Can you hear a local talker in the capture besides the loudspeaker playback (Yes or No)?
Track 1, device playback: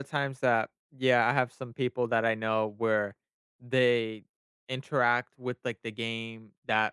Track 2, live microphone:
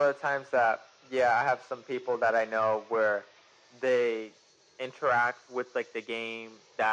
No